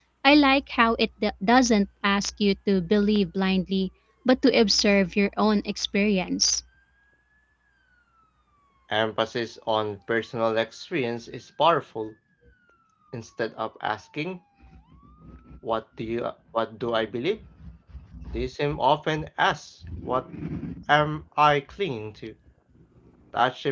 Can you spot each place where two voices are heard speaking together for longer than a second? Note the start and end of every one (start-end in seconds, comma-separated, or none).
none